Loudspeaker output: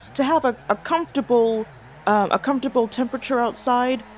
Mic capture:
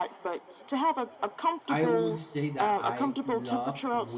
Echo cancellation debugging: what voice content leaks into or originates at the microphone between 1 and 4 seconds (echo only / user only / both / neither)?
both